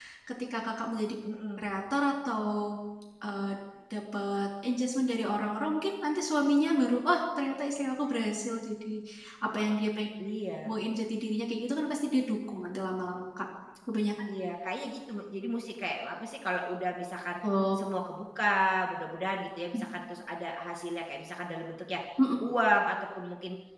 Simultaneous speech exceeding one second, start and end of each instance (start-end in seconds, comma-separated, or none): none